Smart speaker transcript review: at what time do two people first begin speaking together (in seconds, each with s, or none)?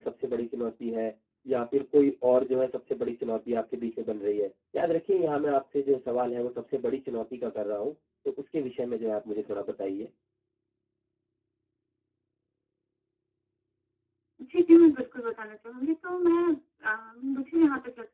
none